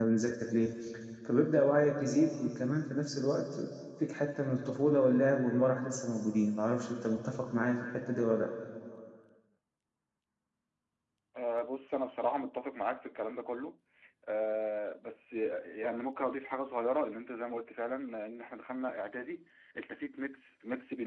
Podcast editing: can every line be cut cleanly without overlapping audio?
Yes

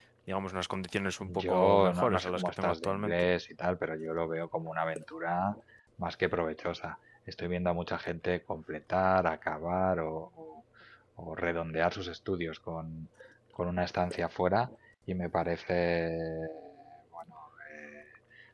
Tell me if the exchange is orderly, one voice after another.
No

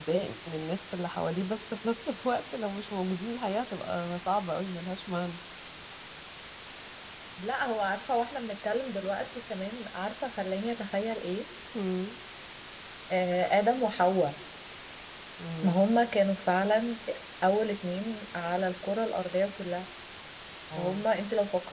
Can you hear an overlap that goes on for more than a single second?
No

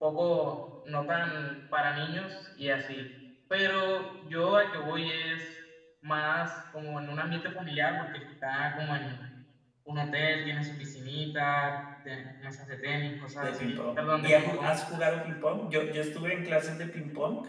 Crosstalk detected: Yes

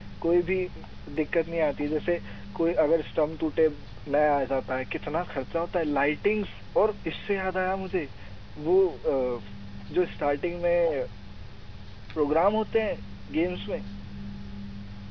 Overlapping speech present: No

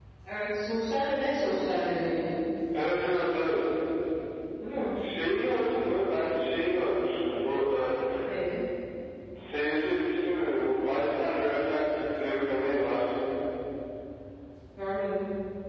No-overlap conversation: Yes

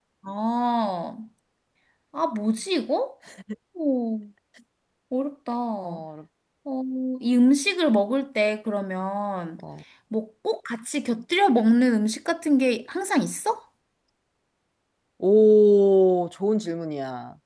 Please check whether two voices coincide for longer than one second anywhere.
No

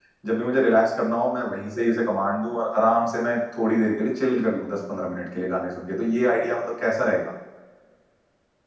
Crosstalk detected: No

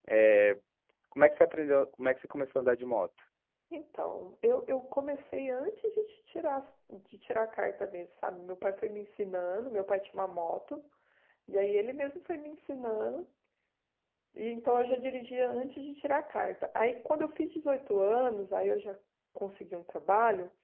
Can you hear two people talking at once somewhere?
No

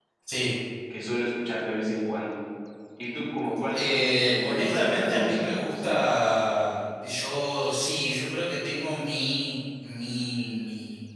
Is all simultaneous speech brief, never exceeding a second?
No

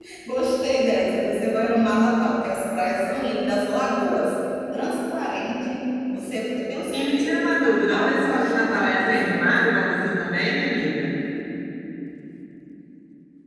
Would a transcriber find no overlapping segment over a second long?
No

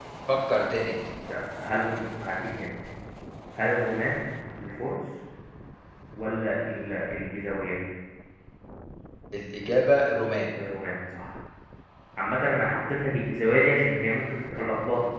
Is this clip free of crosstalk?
Yes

